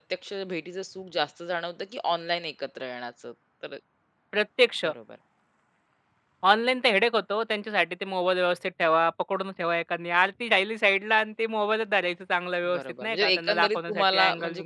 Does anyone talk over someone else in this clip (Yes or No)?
Yes